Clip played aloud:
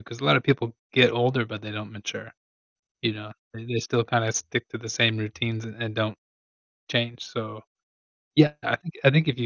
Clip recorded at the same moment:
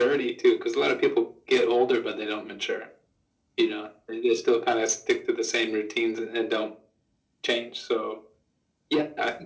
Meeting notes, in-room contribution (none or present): none